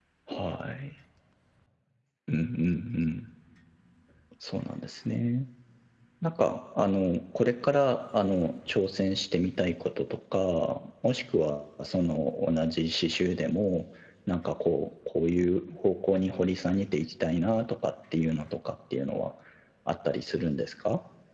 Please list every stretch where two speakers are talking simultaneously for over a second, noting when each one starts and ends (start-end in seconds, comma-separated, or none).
none